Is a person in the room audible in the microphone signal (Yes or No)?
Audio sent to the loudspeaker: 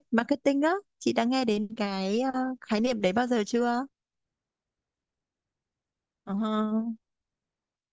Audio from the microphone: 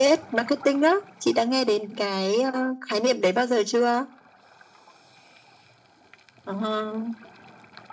No